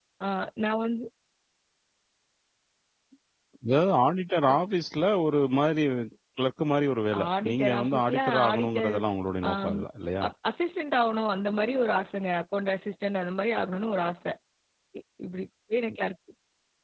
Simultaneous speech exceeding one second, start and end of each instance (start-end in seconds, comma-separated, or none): 7.4-8.9